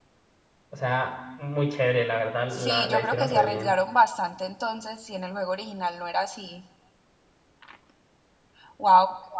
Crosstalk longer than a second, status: present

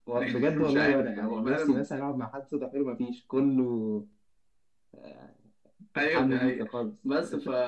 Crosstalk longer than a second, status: present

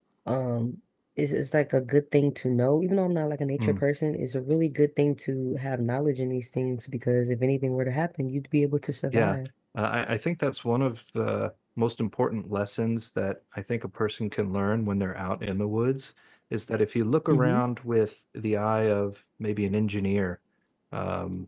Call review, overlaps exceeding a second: none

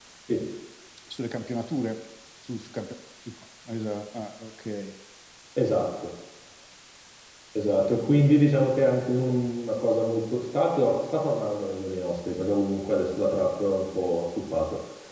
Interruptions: none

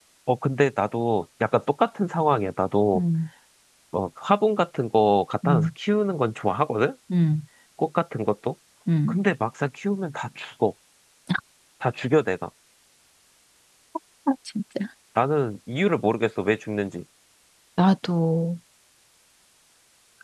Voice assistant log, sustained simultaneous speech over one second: none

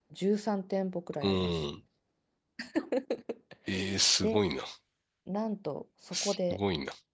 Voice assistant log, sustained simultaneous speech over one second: none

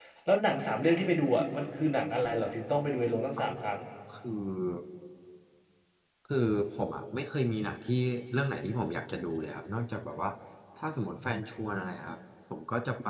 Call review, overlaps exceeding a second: none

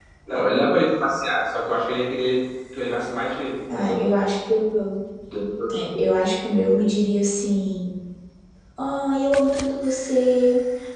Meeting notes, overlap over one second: none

